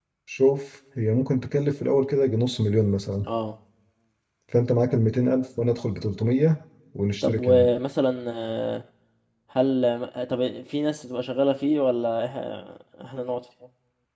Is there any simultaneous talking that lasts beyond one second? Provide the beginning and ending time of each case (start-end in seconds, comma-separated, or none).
none